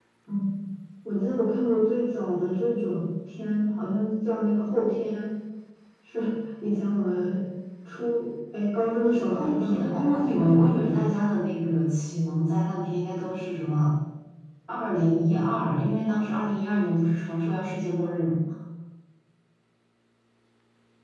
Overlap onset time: 9.3 s

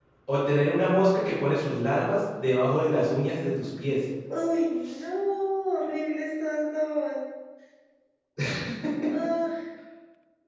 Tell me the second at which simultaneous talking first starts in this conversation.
none

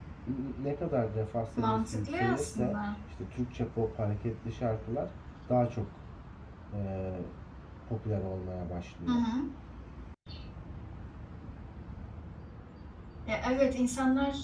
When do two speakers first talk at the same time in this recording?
1.6 s

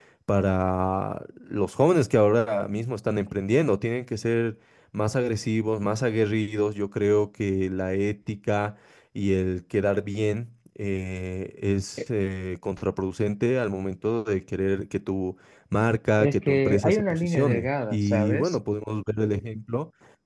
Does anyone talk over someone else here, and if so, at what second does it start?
16.2 s

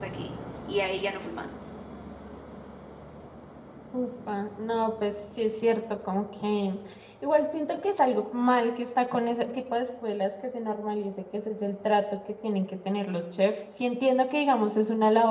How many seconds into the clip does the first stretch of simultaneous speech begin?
none

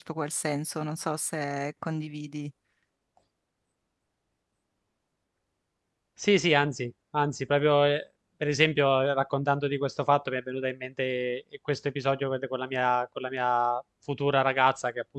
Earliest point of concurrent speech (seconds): none

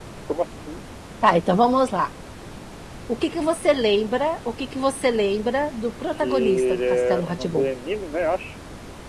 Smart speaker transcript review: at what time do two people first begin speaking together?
6.2 s

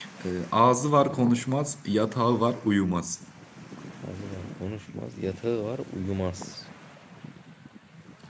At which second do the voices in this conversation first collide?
none

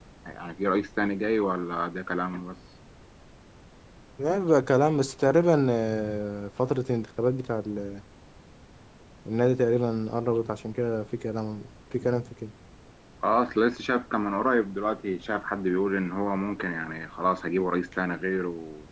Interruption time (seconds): none

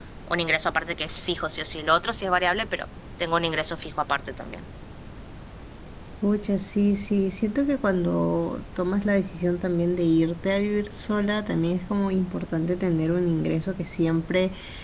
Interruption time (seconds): none

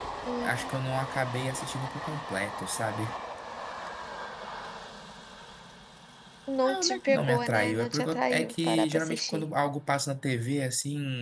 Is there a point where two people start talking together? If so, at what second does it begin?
6.6 s

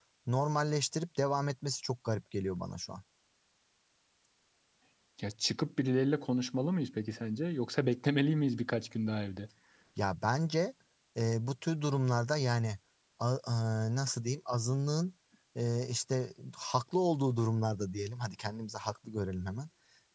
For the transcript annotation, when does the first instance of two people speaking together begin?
none

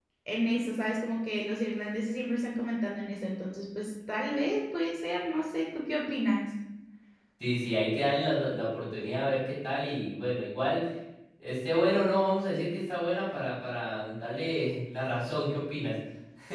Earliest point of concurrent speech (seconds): none

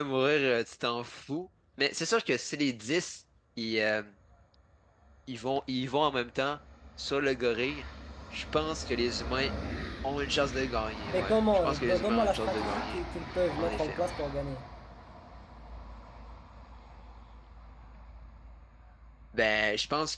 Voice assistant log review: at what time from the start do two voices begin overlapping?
11.1 s

